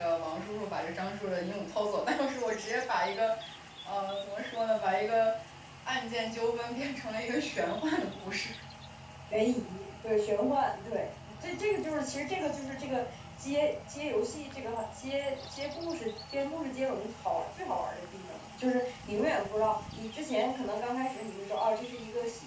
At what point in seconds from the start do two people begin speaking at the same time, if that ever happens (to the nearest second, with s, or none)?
none